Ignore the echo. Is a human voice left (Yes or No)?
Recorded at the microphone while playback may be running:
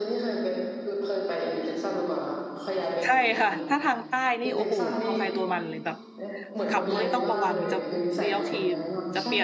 Yes